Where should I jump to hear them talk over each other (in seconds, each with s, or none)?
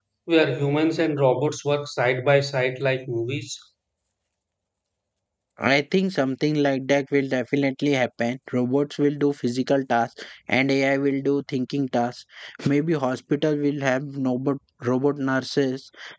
none